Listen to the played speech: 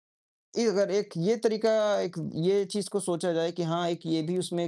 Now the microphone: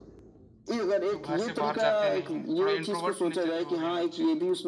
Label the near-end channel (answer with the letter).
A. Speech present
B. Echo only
A